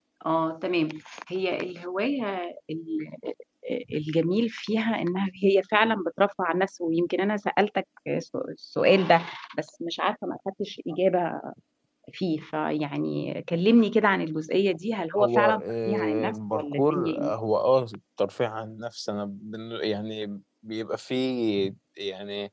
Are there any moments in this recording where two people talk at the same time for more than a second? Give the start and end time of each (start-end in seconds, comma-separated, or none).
15.2-17.3